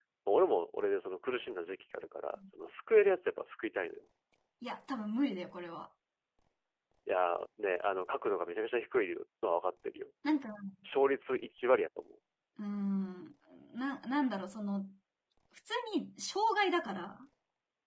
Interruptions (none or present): none